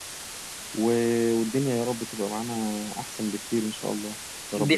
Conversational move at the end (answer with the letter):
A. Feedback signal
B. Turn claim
B